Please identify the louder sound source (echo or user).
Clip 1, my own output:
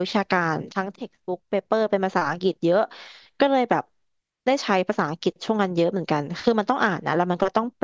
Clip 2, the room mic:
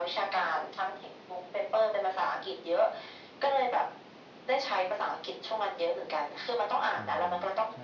echo